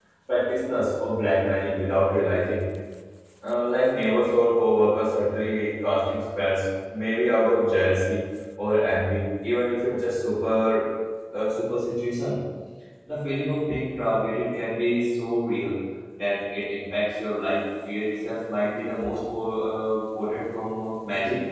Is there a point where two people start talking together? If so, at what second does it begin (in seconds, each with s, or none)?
none